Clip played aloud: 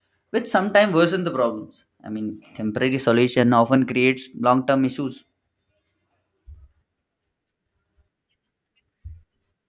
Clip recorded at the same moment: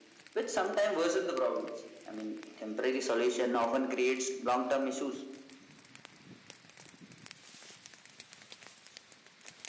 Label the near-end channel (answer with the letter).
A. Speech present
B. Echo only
B